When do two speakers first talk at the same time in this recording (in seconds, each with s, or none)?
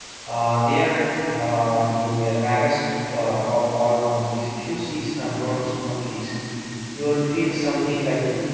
none